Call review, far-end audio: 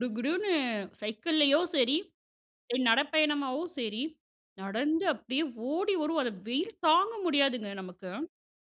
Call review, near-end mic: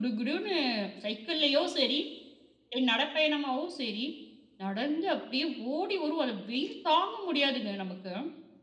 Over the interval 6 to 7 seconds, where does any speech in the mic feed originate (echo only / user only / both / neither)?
echo only